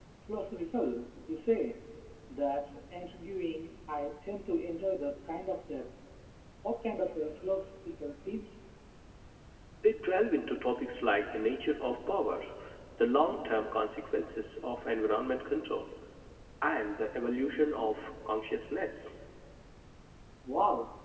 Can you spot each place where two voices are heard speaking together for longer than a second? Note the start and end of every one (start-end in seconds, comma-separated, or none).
none